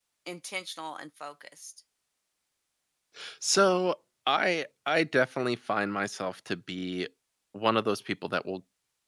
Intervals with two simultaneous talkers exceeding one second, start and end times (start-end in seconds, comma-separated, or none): none